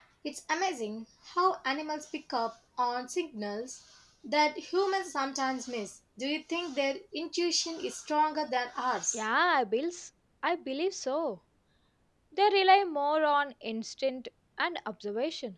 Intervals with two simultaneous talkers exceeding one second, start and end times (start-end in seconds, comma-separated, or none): none